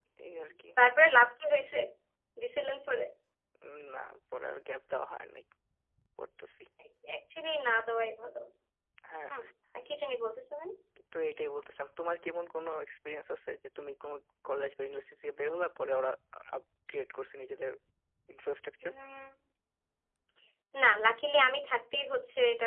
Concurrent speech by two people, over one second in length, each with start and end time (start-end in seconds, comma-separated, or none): none